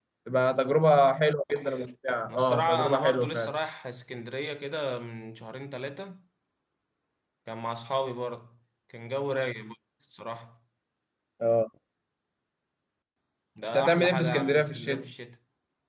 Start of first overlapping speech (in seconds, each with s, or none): 2.3 s